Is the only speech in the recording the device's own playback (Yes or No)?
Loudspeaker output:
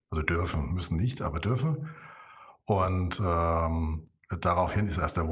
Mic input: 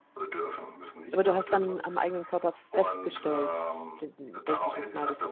No